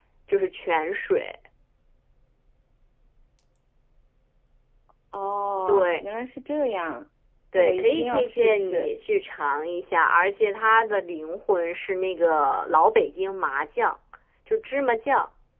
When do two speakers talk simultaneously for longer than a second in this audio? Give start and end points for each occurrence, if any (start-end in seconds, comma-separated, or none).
7.5-8.9